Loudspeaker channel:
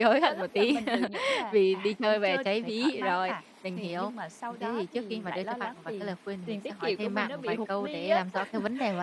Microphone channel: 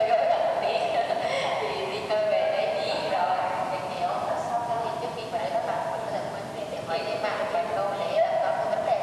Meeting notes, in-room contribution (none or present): none